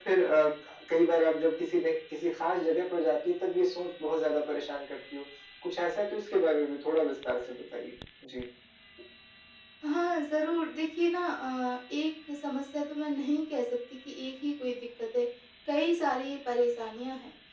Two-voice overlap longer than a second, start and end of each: none

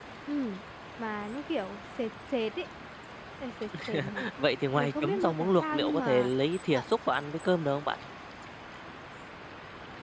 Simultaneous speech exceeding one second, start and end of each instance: 4.7-6.3

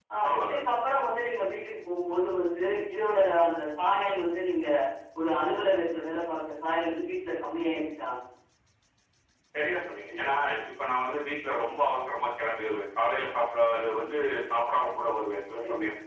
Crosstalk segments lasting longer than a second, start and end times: none

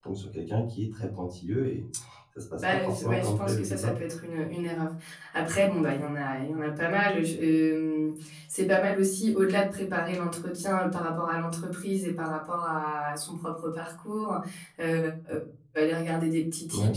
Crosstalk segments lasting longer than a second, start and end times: 2.6-3.9

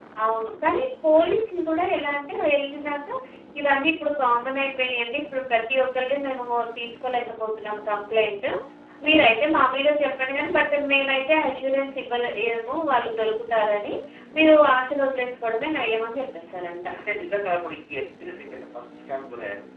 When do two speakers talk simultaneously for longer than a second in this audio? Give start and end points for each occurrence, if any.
none

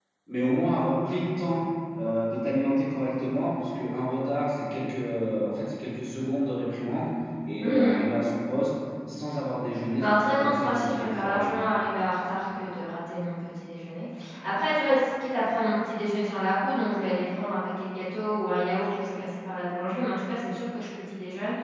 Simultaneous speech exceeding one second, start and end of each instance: 10.0-11.5

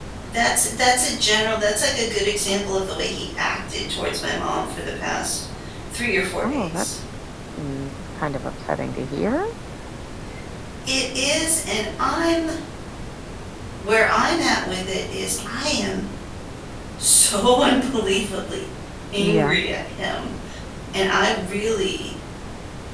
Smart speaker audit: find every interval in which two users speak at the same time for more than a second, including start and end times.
none

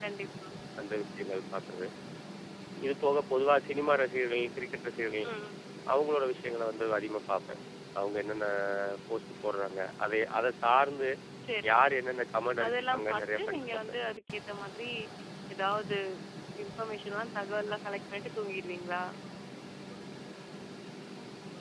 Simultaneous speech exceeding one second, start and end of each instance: 12.6-14.0

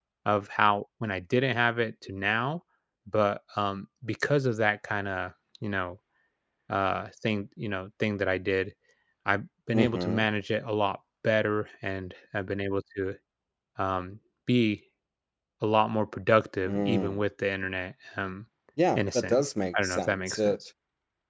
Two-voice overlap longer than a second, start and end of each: 19.0-20.5

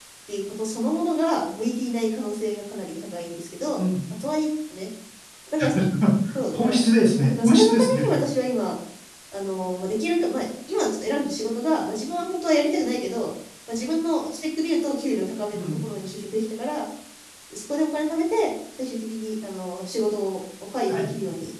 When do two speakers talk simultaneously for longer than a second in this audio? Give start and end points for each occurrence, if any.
6.5-8.1

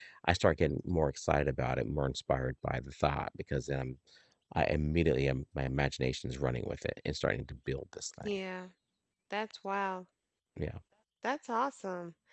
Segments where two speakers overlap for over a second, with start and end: none

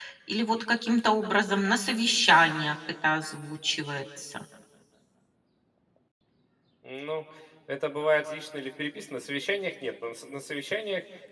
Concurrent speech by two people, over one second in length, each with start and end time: none

